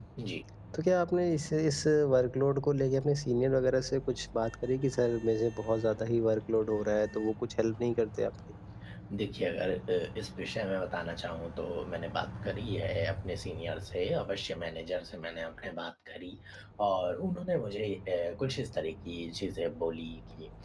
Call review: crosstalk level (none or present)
none